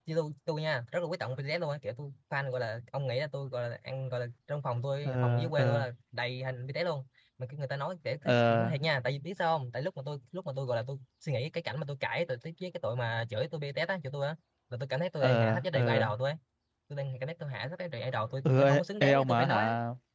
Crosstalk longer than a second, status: present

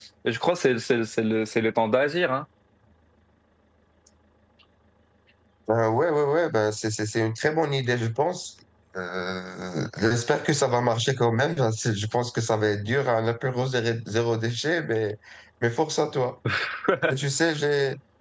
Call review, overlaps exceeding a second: none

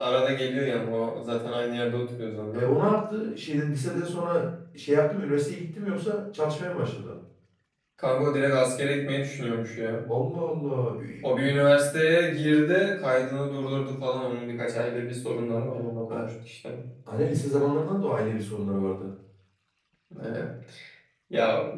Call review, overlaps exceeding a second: none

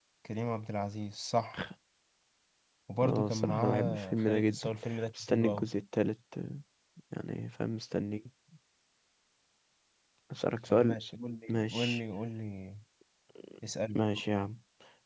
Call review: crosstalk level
present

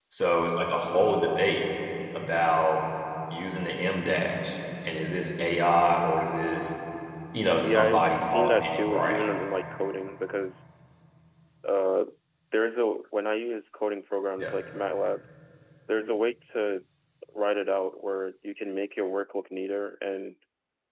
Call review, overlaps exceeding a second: present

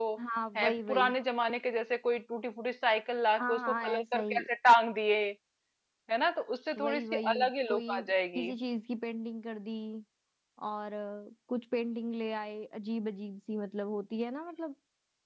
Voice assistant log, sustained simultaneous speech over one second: present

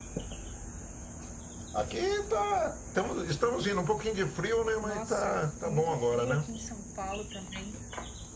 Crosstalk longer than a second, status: present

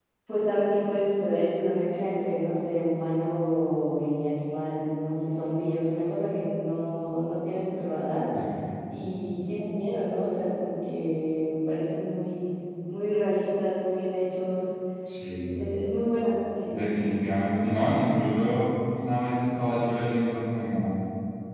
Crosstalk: none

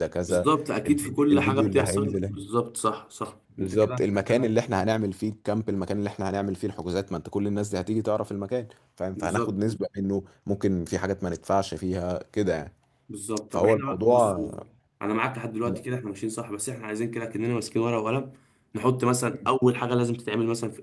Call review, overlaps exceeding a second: present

